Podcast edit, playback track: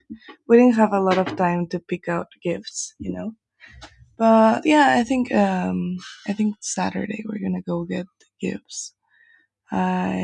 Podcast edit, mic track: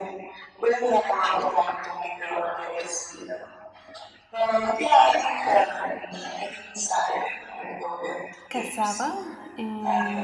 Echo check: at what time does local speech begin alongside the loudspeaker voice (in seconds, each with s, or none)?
8.5 s